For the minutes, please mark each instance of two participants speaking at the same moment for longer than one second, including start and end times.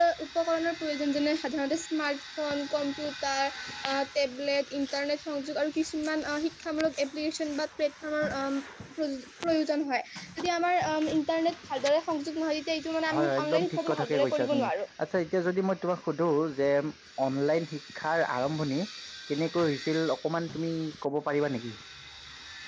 13.1-14.7

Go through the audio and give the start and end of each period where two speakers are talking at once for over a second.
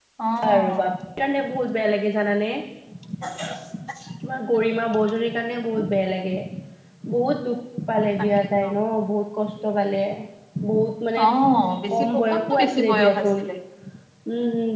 11.9-13.4

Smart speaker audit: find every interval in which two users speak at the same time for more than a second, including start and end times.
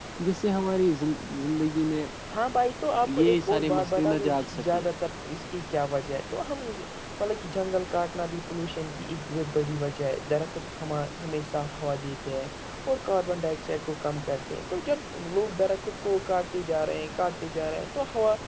3.1-4.8

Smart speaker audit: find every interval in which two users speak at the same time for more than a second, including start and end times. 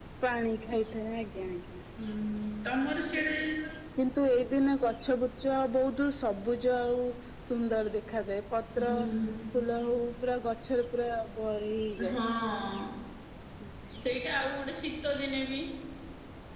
none

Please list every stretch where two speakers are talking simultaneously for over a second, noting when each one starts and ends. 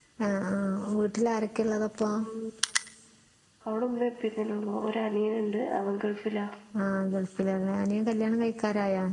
none

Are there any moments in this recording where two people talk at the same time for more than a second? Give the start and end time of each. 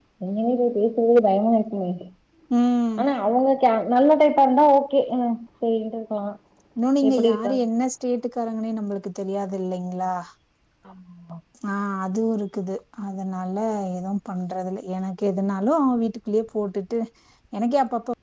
none

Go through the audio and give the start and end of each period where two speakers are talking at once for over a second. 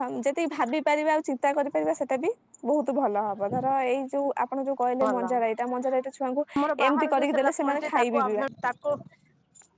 6.9-8.4

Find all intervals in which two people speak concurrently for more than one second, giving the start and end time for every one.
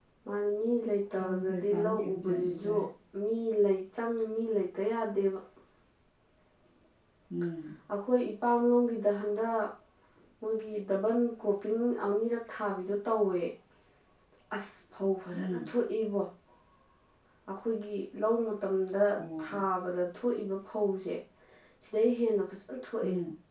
1.2-2.8

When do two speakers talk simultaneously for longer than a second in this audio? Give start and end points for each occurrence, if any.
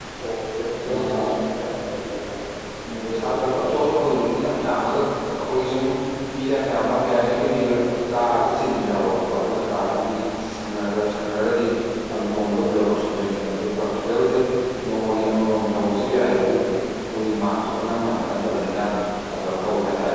2.9-4.5

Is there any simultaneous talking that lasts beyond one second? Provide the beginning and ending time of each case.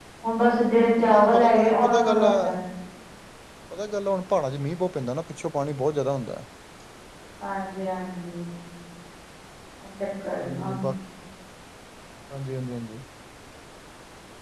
1.0-2.3

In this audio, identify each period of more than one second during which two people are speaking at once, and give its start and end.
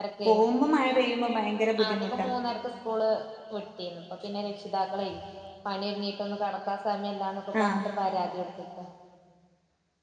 none

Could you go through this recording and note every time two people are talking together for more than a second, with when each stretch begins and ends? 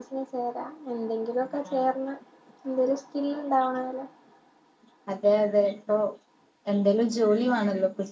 none

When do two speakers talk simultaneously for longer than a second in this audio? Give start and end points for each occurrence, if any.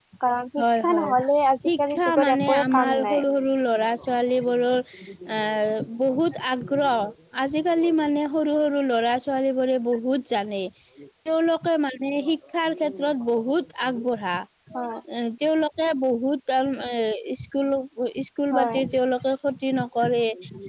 1.7-3.2

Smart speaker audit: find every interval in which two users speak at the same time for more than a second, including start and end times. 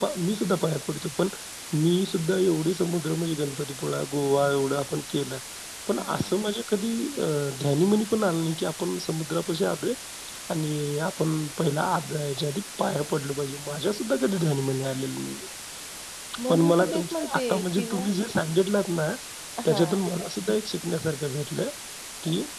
16.5-18.1

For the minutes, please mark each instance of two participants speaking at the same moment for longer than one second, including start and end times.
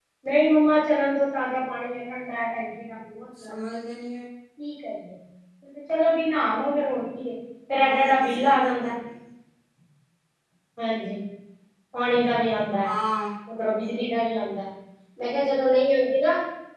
7.7-8.9

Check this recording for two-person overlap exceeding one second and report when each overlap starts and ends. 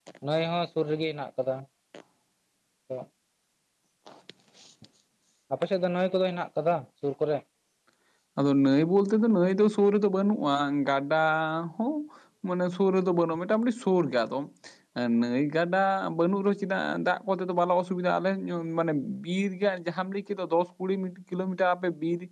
none

